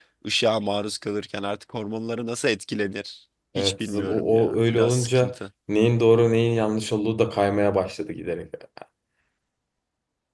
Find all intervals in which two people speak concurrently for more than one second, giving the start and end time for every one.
3.6-5.3

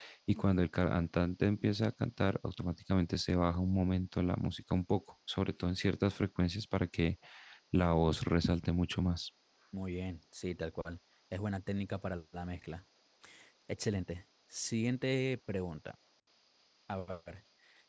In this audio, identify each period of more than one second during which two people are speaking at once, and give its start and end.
none

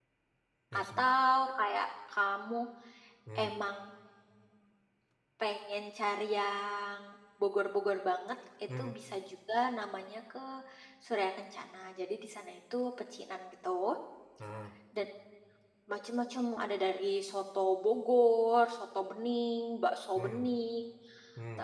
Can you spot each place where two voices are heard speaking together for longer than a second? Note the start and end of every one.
none

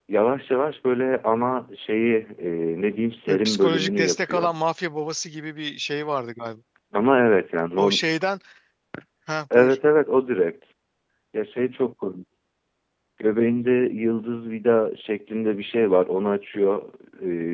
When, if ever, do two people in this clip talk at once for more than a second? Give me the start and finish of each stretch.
3.3-4.5

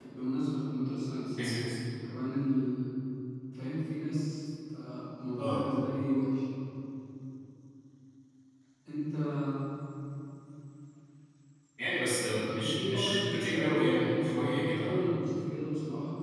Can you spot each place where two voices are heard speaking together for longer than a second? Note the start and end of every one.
12.6-15.1

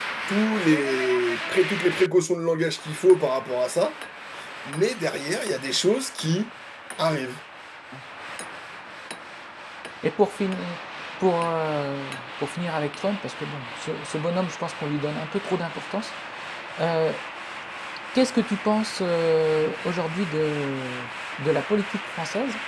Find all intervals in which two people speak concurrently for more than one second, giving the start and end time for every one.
none

